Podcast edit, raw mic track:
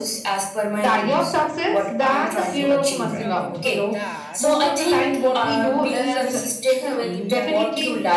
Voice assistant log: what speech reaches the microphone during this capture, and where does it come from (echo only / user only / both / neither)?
both